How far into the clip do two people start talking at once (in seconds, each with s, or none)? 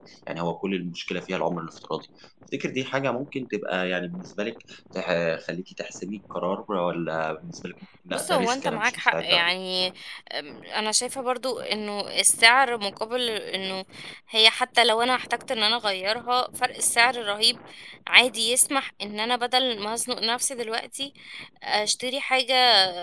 8.1 s